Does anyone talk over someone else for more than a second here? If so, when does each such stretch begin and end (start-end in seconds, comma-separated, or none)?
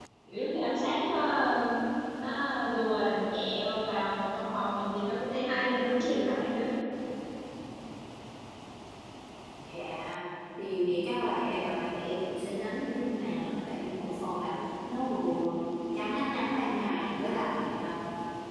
none